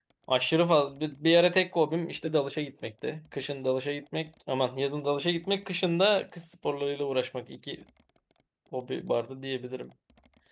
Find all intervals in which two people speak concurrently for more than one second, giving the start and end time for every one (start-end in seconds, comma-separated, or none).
none